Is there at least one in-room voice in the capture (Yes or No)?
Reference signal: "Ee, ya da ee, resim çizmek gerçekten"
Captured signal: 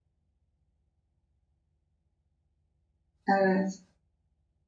Yes